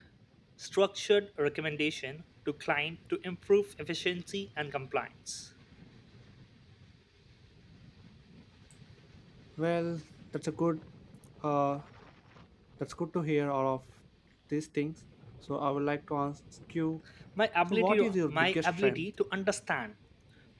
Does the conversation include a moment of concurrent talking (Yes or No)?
Yes